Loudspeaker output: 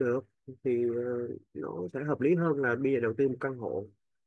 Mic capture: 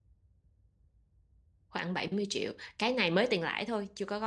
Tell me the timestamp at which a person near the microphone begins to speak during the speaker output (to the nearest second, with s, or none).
2 s